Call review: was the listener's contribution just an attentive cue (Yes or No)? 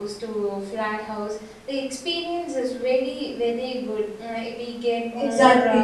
No